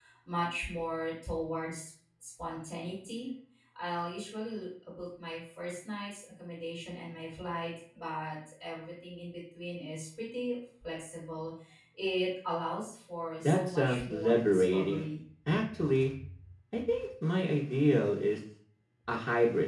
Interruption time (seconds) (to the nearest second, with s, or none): 13 s